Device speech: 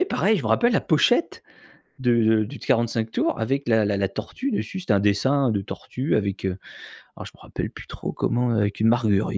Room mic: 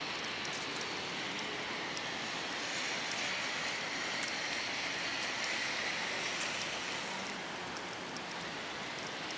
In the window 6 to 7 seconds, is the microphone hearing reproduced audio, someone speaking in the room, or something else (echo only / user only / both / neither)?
neither